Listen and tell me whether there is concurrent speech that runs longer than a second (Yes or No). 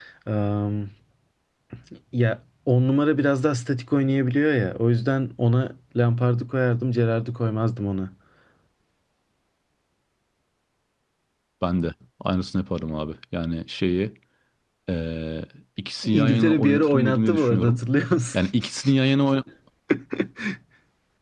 Yes